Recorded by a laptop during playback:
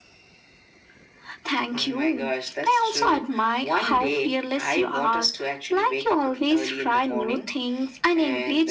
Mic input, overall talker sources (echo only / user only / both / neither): echo only